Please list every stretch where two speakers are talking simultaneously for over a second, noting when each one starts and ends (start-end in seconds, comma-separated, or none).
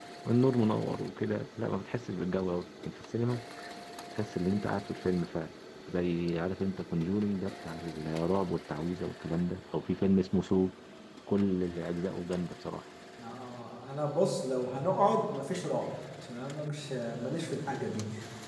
none